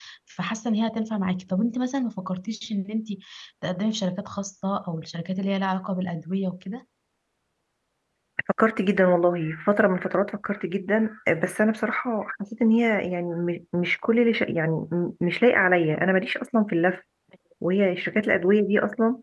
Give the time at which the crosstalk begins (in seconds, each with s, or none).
none